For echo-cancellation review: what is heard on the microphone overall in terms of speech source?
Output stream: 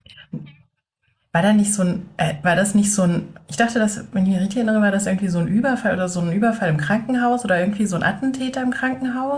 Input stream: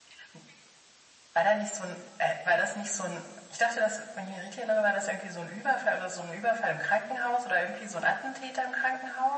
echo only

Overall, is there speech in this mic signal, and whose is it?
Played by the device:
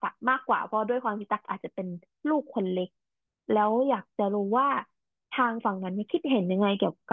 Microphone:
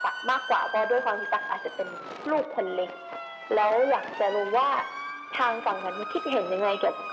echo only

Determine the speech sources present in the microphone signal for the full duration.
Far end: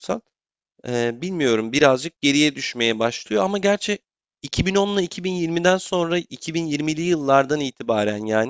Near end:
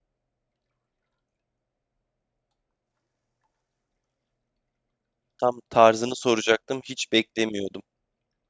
user only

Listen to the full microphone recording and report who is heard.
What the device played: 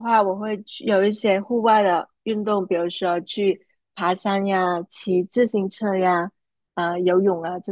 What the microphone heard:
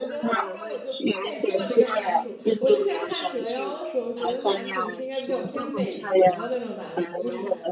both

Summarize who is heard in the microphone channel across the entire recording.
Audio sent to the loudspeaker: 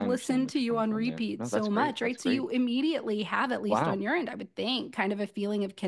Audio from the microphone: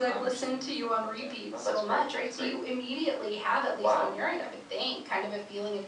echo only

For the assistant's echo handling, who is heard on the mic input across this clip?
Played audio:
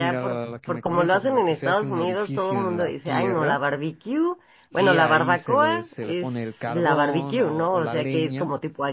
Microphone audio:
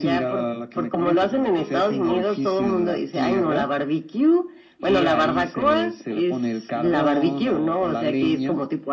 both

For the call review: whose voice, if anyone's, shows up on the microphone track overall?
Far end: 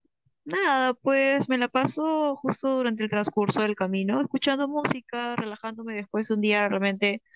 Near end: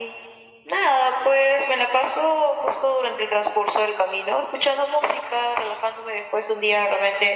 echo only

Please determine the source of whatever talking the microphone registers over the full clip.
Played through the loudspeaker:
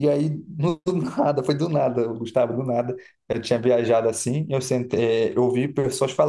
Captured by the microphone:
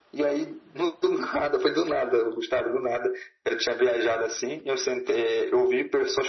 echo only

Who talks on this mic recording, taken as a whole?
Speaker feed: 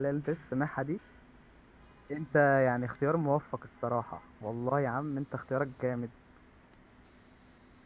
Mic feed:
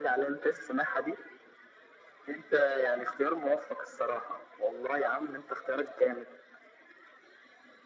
echo only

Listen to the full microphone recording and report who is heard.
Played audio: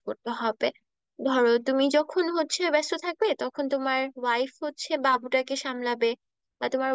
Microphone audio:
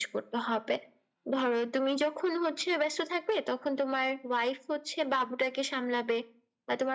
echo only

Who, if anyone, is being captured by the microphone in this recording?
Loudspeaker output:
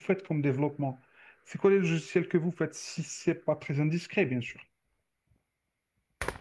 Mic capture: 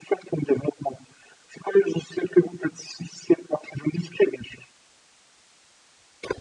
echo only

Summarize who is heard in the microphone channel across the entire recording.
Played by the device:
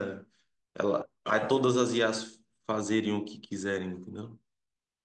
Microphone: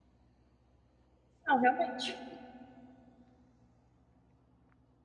user only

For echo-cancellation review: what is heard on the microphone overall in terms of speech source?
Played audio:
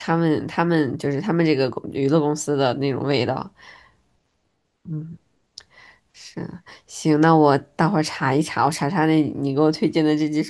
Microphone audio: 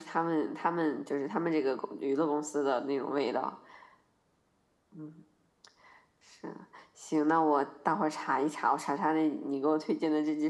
echo only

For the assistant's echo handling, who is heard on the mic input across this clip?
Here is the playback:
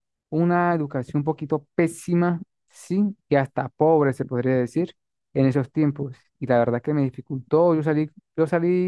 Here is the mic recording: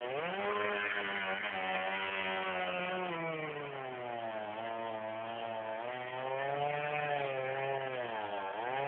neither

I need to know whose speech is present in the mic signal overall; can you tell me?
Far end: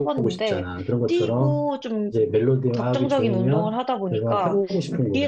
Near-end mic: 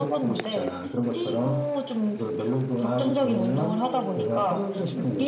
both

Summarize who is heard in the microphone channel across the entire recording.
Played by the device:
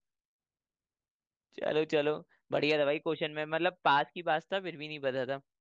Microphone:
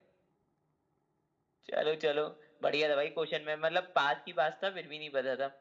echo only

